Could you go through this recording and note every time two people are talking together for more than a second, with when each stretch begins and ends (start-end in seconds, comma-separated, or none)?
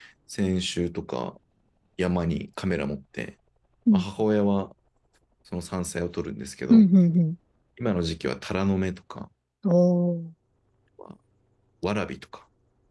none